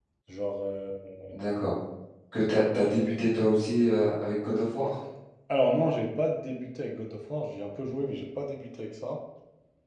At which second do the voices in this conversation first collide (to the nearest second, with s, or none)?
none